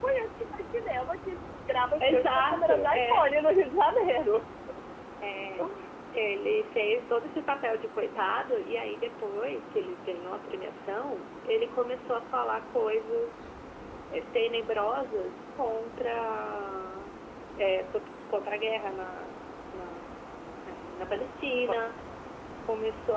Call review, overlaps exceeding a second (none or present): present